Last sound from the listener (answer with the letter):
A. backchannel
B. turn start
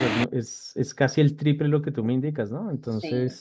B